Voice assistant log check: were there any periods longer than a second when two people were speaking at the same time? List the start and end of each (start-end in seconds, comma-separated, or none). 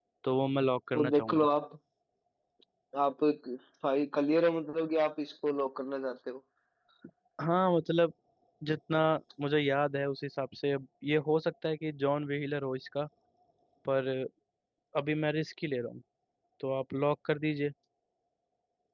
none